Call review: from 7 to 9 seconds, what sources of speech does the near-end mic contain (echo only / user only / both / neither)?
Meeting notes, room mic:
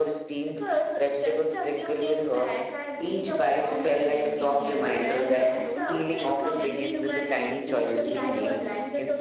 both